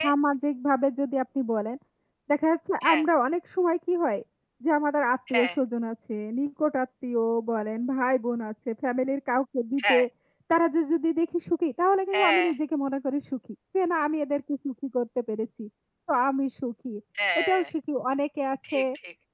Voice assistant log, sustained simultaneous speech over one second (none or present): none